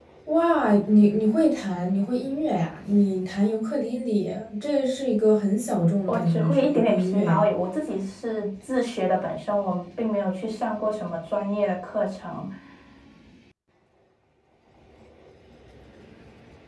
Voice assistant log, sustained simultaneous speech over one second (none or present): present